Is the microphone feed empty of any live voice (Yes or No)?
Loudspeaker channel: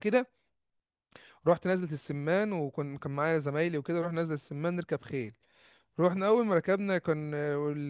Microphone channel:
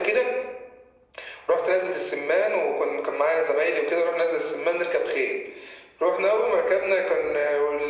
Yes